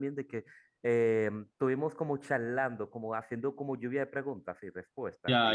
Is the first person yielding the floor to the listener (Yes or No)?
Yes